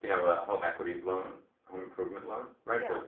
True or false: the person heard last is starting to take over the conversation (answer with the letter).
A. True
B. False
B